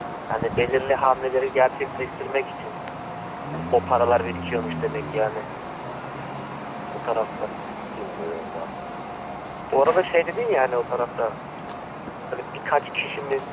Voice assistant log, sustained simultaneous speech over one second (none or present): none